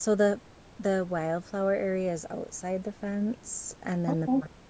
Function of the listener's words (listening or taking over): listening